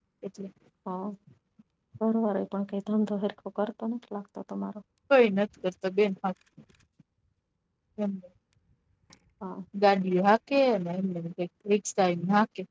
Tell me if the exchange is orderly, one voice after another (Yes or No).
Yes